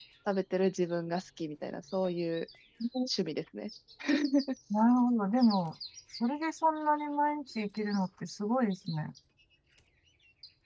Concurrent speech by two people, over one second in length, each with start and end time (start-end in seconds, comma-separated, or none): none